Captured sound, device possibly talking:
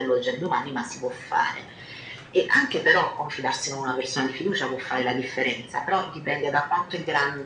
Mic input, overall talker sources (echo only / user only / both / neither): echo only